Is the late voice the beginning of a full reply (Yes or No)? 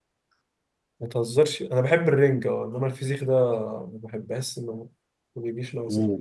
Yes